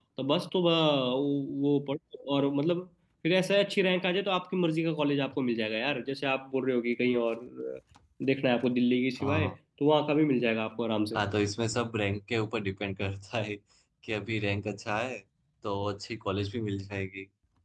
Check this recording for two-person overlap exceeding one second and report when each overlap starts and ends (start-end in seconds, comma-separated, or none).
none